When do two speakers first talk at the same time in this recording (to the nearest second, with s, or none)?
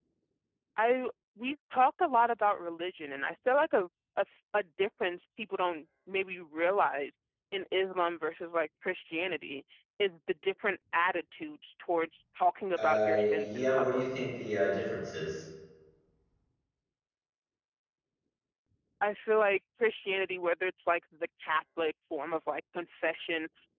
13 s